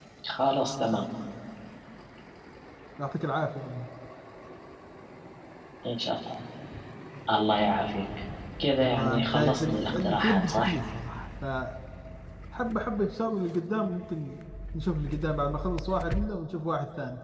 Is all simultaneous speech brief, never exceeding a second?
No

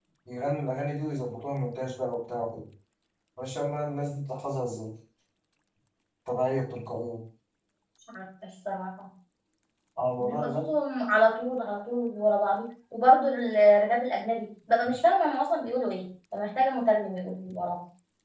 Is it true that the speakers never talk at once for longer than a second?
Yes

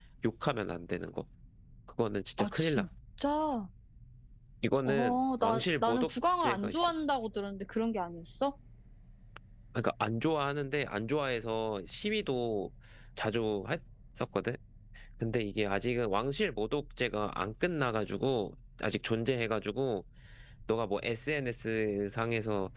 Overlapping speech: Yes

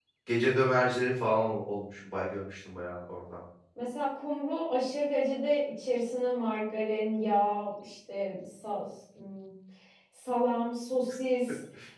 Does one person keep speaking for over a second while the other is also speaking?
No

